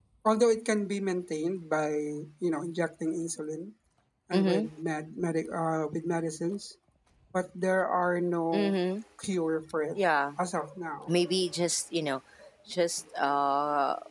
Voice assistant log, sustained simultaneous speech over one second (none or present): none